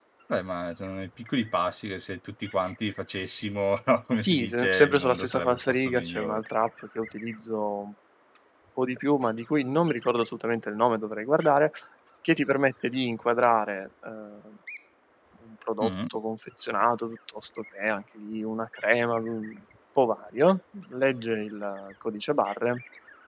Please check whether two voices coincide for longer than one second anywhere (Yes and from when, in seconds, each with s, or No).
Yes, from 4.2 s